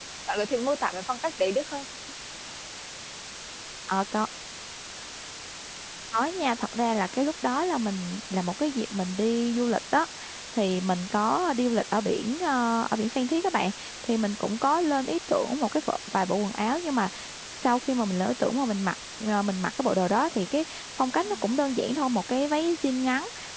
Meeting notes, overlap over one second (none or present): none